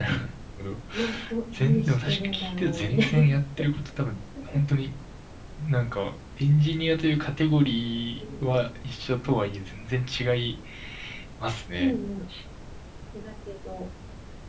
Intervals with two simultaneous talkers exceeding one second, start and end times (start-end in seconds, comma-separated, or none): 1.6-3.2